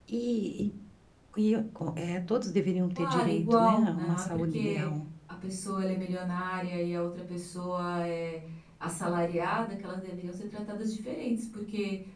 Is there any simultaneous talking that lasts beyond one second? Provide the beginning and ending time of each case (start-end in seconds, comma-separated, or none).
3.0-4.9